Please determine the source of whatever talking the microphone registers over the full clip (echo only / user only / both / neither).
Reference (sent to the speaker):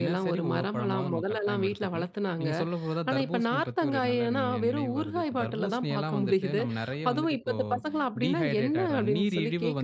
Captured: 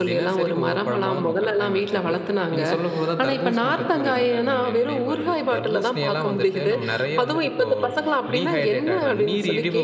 echo only